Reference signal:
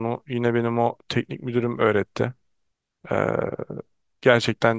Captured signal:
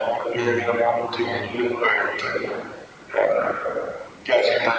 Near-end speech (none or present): present